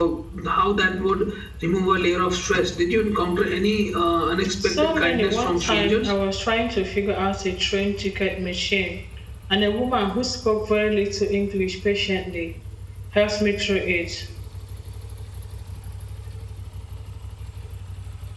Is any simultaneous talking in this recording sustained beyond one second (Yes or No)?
Yes